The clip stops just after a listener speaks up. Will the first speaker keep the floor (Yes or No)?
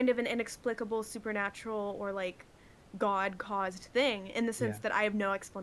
Yes